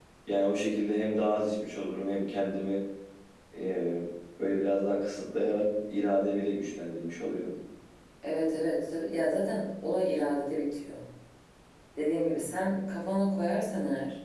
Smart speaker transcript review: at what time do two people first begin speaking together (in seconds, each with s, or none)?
none